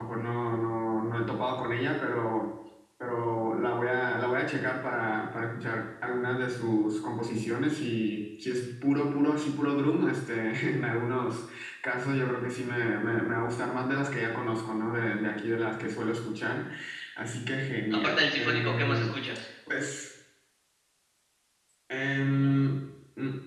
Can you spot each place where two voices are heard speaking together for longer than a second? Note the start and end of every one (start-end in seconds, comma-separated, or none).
17.9-19.1